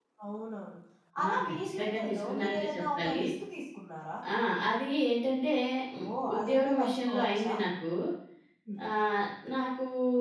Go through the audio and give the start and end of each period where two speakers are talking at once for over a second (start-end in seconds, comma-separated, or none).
1.2-3.2, 6.0-7.5